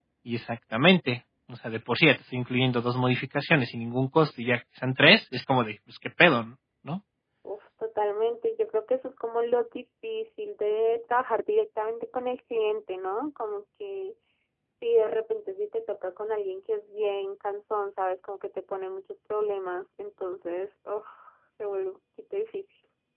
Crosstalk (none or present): none